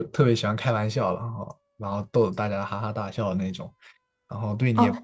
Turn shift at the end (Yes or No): Yes